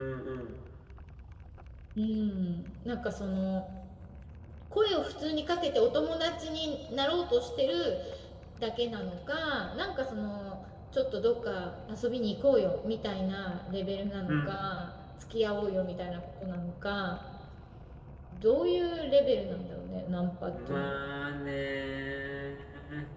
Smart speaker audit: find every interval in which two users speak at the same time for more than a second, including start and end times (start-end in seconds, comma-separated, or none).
none